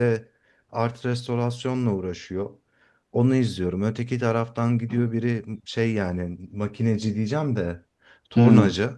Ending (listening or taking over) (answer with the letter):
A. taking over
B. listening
B